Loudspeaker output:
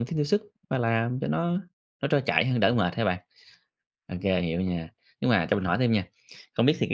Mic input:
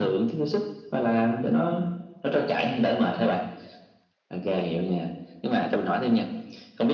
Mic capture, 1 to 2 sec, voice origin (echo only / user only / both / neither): echo only